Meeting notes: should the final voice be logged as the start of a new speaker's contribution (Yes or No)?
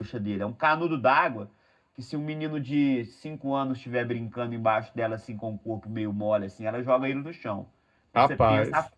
No